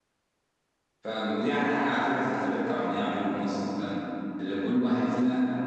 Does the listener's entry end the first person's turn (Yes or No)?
No